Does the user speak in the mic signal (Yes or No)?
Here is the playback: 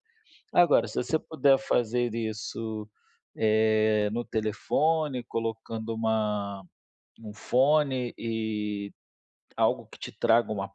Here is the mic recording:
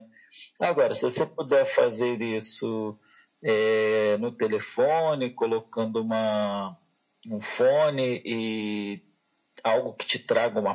No